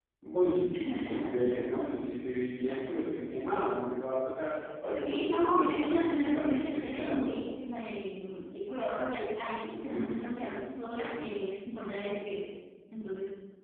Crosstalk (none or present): present